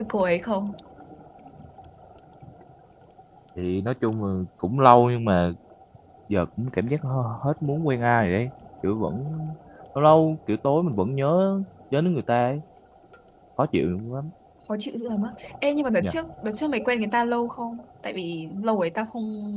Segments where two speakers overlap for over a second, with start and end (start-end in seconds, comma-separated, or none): none